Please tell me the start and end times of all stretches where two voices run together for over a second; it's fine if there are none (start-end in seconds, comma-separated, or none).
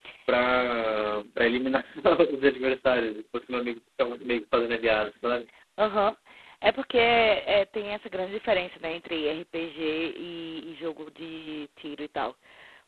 none